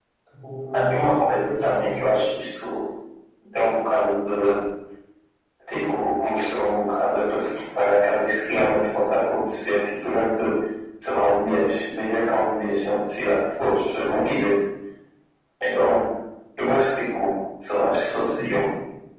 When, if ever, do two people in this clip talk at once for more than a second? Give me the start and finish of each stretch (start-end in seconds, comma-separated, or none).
0.7-2.0